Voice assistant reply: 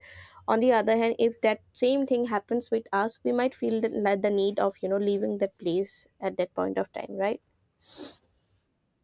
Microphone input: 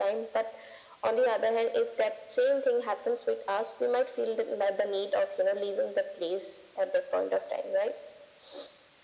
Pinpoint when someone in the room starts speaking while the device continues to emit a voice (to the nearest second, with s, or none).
none